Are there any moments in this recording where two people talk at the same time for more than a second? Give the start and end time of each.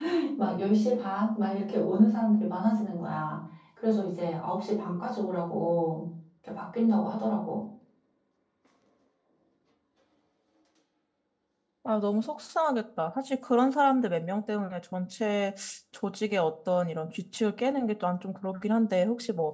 none

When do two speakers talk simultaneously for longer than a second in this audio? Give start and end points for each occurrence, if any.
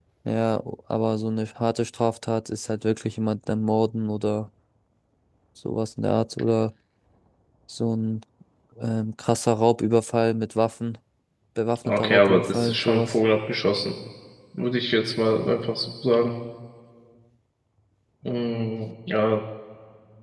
11.8-13.2

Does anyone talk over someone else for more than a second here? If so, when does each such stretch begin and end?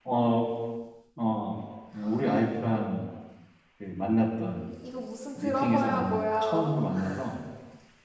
5.3-6.7

